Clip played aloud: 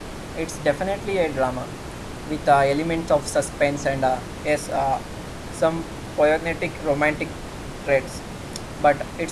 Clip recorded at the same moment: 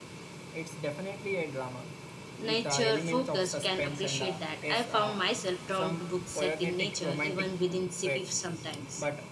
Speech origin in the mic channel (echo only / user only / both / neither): both